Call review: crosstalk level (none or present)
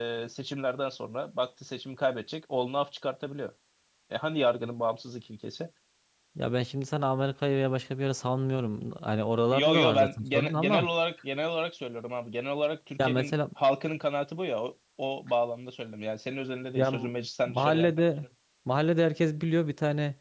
present